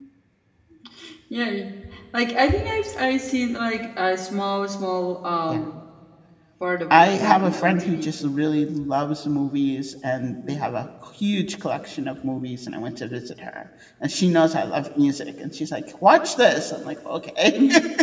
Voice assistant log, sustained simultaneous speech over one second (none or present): present